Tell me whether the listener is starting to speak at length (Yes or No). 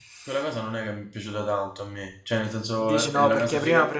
Yes